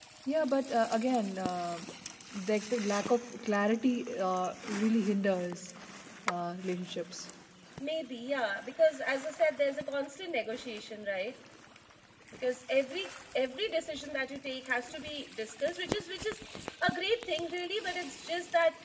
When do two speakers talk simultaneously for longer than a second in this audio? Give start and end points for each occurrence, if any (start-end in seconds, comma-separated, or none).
none